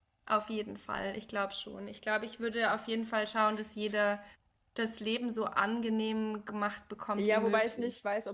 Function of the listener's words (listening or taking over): taking over